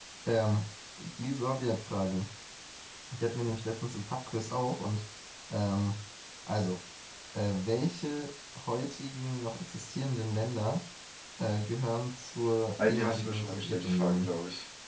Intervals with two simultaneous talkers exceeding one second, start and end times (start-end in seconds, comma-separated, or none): 12.8-14.3